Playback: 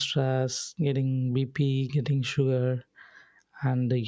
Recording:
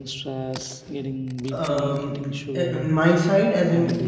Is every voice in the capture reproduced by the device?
No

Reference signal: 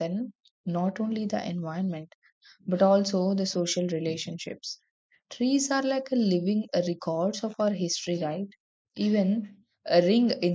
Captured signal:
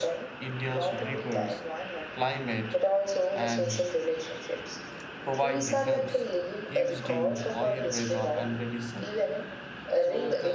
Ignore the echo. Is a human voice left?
Yes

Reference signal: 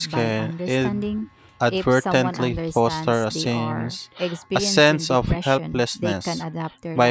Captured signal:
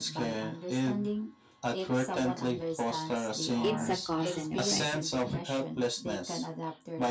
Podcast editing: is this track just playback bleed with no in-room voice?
No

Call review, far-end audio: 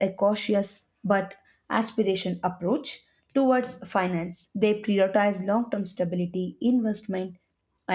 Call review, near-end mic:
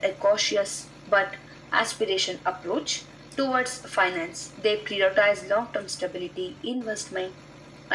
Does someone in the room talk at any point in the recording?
No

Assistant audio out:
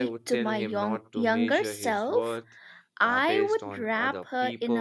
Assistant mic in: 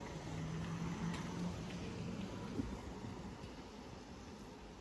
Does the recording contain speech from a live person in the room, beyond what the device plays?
No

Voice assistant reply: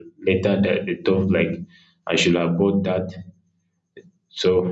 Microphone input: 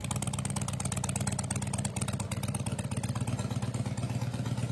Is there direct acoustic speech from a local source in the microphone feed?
No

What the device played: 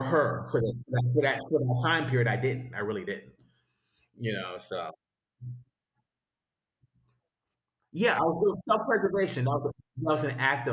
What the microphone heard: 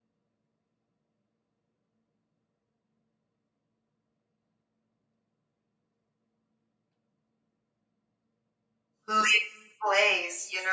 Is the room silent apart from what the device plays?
No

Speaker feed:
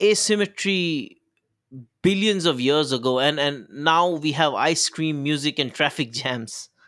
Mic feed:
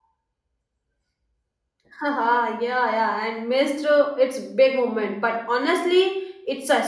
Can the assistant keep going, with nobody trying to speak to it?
No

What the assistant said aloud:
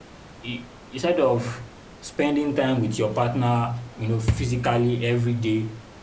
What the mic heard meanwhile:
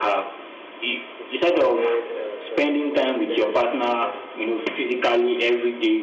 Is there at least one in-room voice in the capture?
Yes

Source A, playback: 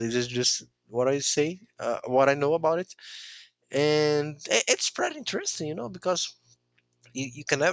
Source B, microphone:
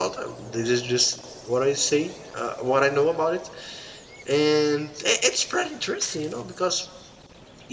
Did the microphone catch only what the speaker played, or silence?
Yes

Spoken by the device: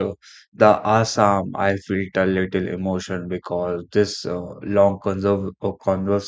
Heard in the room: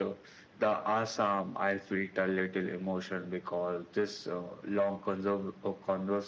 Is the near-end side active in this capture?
No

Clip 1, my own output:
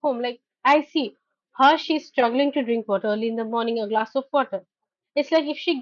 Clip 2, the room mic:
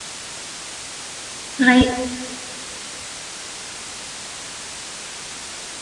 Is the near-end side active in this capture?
Yes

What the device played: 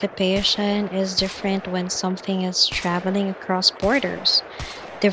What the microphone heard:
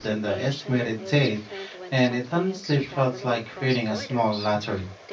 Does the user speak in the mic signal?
Yes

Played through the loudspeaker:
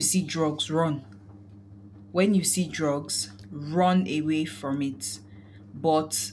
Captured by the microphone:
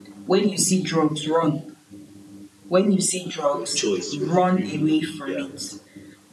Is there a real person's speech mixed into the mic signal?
Yes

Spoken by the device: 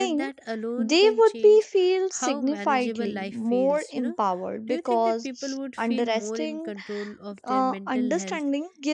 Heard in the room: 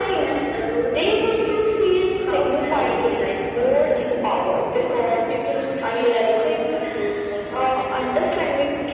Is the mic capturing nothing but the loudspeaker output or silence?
Yes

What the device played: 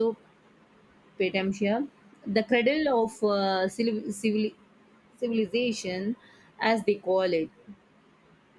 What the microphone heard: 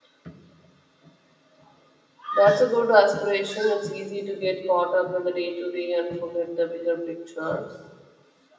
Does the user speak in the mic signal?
Yes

